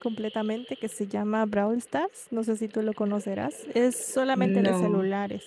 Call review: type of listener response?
listening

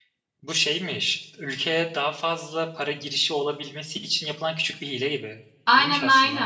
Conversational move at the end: taking over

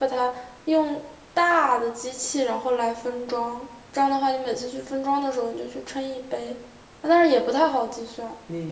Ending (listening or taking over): taking over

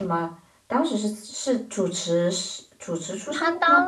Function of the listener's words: taking over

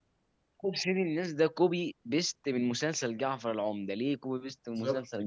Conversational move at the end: taking over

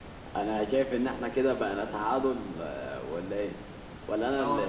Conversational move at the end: taking over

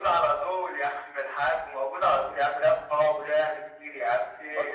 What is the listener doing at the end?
taking over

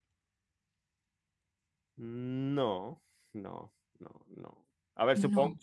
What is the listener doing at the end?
listening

